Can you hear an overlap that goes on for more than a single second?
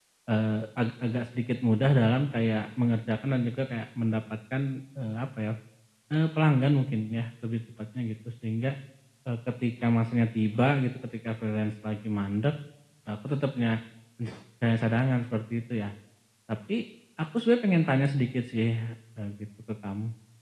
No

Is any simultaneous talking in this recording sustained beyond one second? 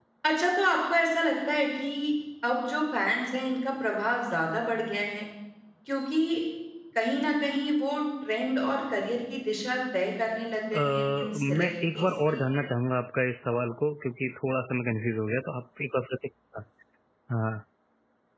Yes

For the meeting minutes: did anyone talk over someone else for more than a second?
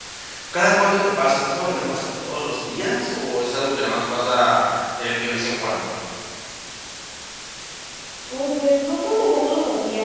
No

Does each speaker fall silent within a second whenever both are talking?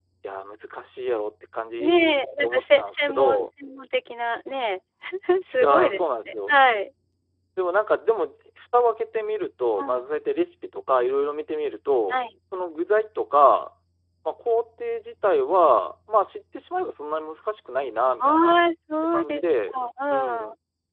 No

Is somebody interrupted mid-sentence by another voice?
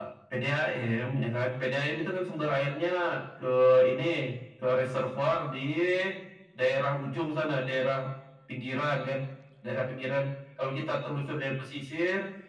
No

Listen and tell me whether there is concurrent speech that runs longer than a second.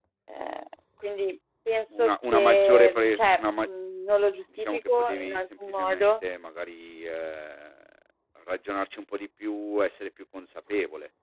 Yes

